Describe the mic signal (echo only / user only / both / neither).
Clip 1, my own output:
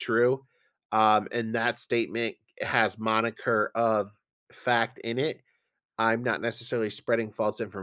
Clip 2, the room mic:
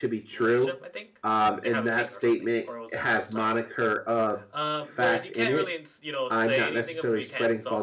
both